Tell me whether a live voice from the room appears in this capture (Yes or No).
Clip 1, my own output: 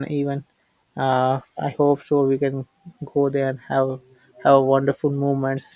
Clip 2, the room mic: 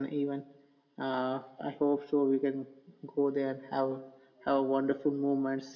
No